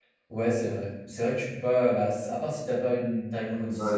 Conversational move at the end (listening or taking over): taking over